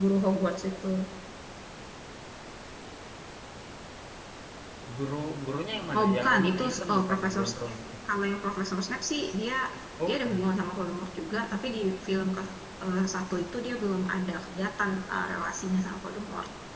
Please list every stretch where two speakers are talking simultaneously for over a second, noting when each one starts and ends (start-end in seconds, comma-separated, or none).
6.0-7.7